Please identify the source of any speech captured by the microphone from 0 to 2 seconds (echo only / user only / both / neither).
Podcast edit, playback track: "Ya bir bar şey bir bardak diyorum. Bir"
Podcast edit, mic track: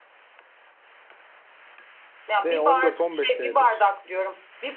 neither